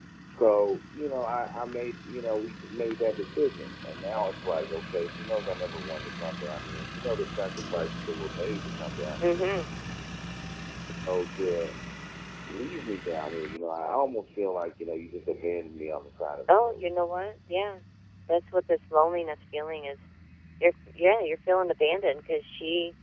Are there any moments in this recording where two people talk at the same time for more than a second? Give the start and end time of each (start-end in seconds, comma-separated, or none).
none